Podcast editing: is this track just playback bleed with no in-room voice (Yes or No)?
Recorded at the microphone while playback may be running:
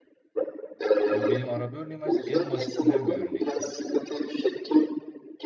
No